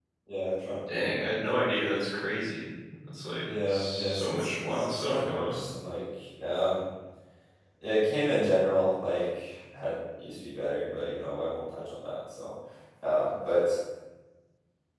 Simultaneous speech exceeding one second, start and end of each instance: 3.7-5.6

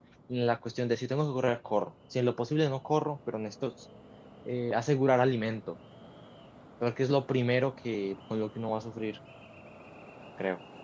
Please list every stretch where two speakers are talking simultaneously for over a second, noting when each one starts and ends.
none

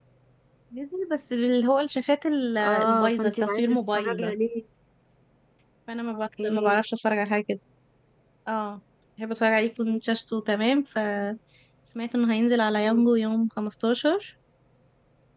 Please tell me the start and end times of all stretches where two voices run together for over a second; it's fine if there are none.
2.6-4.3

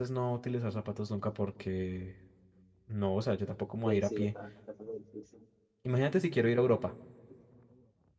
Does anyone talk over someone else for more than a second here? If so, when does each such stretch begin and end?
none

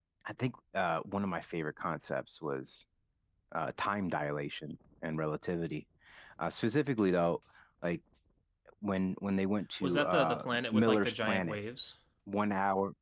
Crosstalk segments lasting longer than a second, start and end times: 9.8-11.6

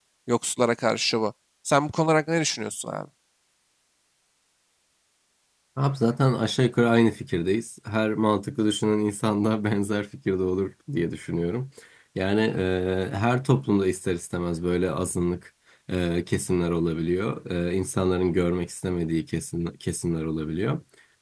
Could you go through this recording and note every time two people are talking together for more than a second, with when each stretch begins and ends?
none

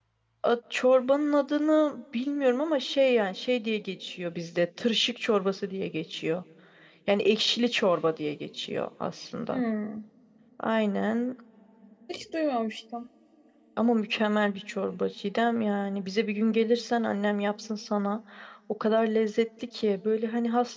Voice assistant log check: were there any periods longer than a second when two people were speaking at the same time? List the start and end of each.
none

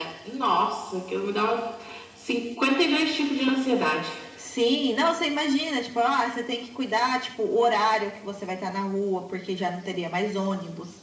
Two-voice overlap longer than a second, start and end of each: none

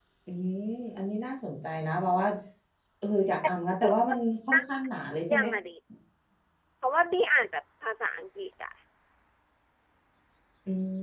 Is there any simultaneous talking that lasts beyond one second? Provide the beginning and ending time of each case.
none

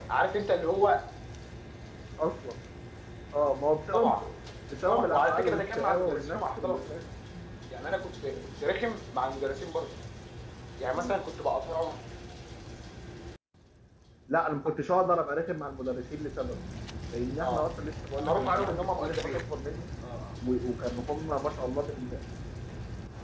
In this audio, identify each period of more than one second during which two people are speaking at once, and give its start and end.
4.9-6.8, 18.2-19.4

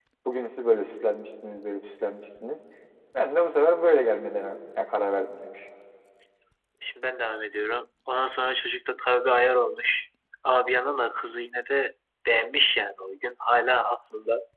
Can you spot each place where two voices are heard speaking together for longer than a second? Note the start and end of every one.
none

